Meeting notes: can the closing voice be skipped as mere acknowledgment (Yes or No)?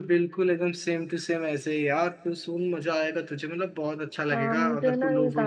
No